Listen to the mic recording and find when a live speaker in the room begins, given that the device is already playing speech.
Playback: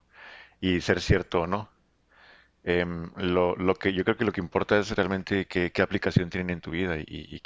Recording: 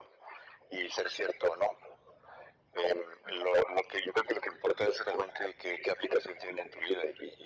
none

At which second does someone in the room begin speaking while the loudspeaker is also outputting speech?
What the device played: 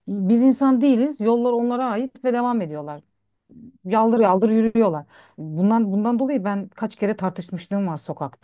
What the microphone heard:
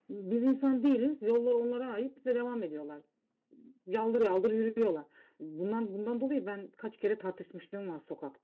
none

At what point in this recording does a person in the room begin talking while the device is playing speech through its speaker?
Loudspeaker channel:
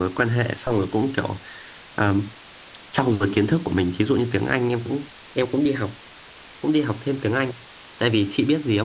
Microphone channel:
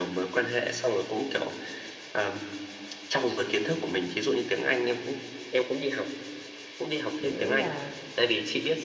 7.2 s

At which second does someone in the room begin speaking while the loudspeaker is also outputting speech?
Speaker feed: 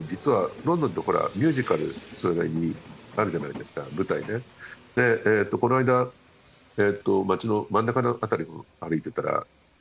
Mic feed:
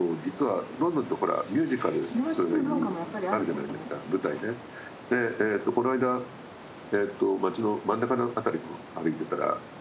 2.1 s

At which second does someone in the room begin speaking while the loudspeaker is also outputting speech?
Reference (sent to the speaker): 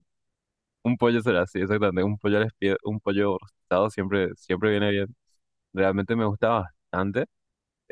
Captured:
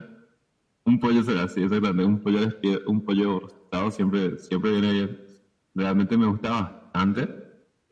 none

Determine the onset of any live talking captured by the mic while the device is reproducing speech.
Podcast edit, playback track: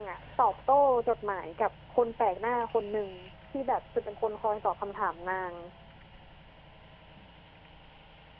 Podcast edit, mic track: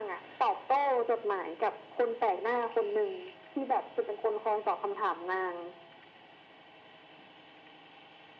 none

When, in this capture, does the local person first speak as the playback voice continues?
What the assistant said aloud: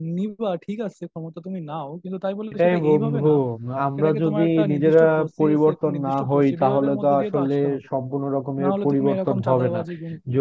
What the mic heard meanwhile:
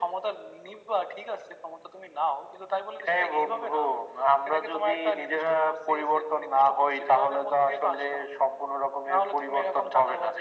none

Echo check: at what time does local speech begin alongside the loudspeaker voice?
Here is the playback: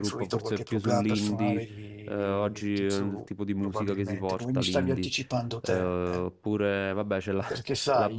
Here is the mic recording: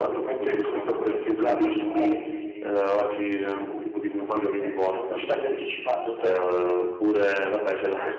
none

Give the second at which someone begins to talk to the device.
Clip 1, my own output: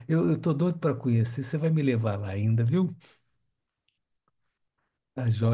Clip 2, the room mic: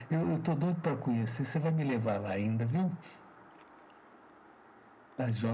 none

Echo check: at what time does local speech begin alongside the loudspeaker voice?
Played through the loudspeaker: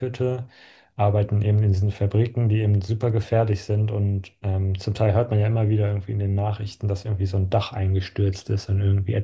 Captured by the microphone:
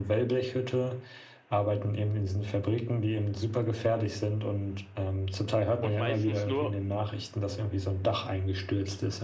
5.8 s

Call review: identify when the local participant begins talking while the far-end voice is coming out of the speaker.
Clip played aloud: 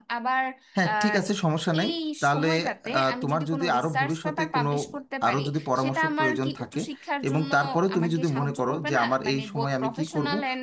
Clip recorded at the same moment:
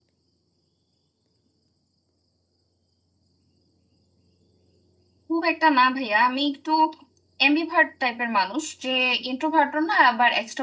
5.3 s

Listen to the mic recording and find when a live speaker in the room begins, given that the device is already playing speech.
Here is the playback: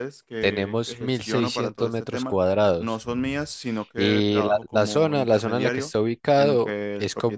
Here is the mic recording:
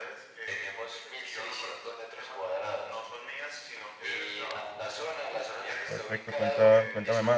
5.8 s

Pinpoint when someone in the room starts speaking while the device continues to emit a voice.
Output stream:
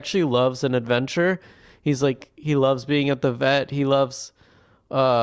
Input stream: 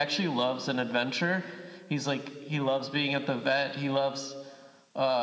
none

